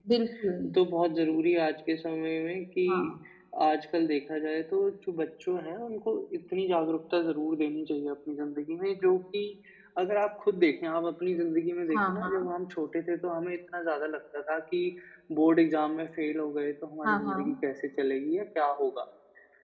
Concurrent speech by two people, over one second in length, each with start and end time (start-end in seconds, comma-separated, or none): none